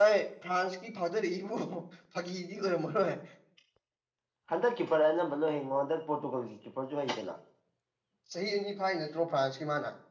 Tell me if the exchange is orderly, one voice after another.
Yes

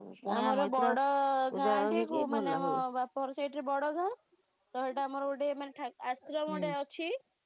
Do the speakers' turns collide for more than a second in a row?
Yes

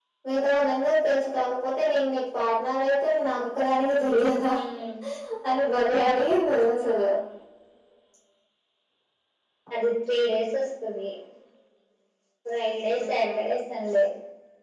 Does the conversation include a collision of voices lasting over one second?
No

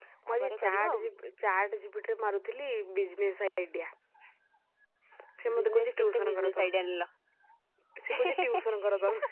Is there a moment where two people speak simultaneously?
Yes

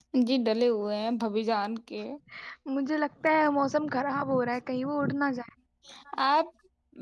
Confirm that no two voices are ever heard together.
Yes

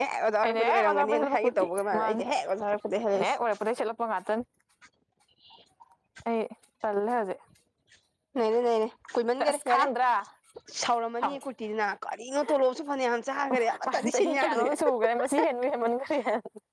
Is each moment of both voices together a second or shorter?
No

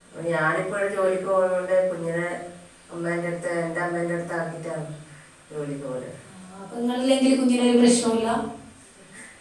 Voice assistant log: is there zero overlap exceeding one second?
Yes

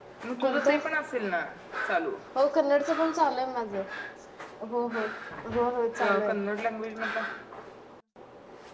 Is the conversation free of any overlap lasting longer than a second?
Yes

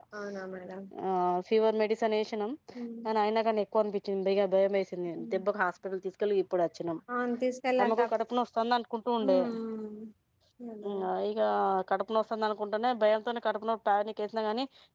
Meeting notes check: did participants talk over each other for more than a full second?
No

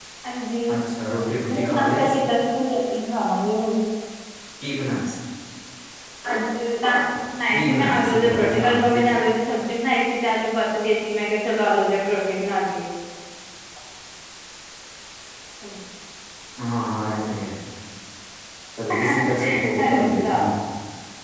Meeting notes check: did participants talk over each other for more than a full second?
Yes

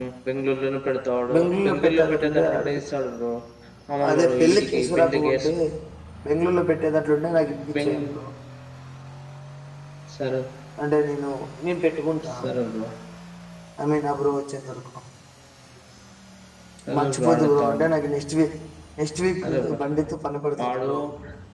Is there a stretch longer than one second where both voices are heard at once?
Yes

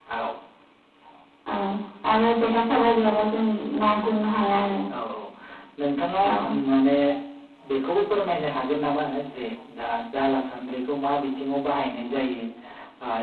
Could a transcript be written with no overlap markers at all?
Yes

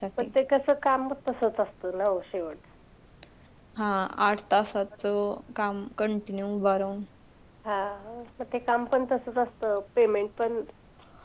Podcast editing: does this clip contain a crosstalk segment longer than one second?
No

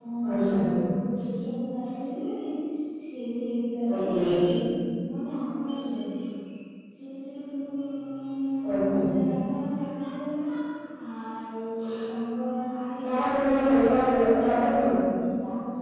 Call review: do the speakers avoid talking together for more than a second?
No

